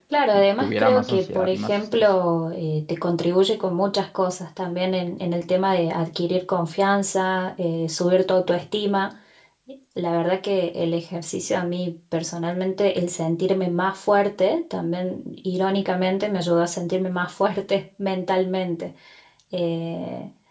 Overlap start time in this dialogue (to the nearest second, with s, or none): 1 s